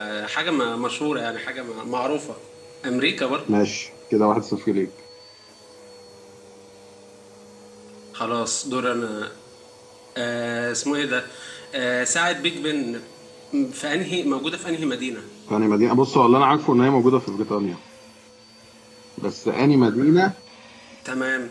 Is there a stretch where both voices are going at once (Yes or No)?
No